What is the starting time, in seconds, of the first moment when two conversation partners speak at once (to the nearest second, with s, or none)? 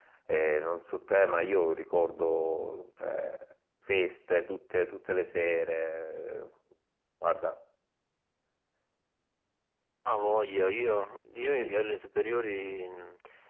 none